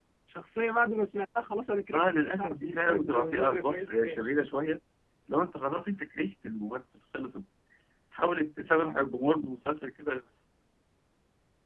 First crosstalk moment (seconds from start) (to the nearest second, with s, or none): 2 s